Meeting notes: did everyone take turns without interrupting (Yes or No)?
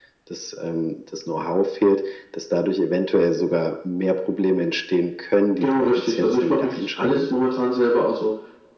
No